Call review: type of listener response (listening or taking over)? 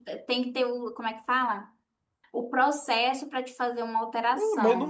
taking over